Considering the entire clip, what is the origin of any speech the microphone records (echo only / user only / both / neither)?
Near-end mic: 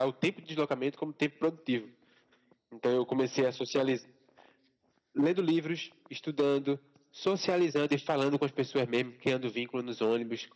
echo only